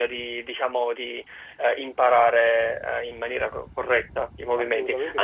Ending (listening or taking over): listening